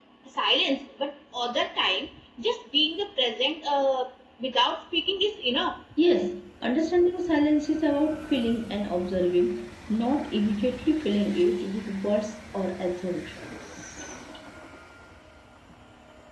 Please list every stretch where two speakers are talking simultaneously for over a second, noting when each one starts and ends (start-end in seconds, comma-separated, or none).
none